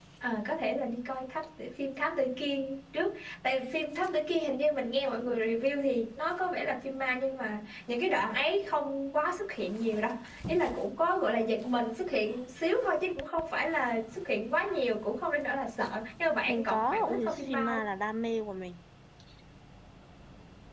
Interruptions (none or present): present